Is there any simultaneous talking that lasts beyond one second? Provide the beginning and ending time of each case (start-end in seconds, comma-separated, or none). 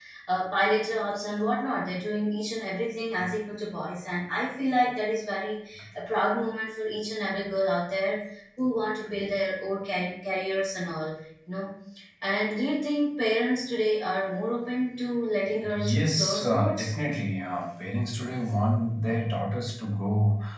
15.6-16.9